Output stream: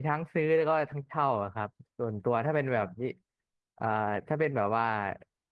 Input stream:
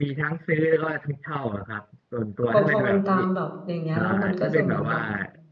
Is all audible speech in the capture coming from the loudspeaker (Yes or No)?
No